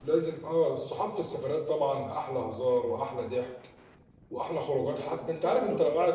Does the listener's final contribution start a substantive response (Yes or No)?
No